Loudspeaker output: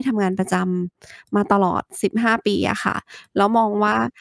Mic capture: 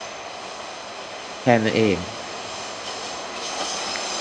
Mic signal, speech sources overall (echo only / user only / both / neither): user only